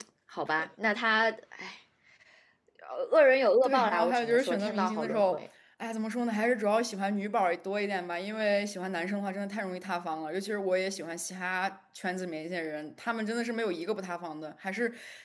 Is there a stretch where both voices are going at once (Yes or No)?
Yes